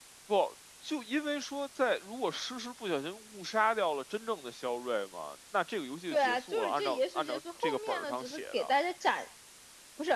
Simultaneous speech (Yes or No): Yes